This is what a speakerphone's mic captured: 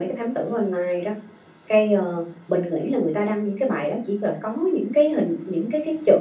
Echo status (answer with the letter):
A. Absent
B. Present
B